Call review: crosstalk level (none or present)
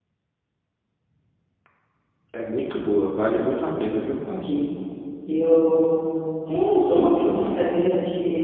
none